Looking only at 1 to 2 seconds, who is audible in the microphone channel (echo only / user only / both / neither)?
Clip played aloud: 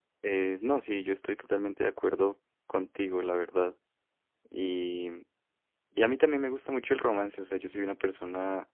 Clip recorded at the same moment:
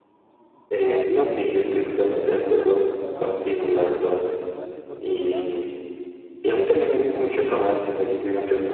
both